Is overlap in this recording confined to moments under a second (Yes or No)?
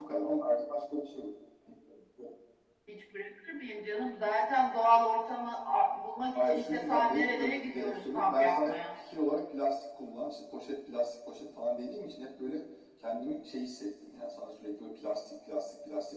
No